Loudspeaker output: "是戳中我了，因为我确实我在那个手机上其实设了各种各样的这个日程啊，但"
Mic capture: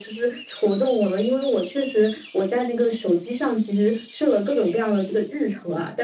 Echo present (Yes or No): Yes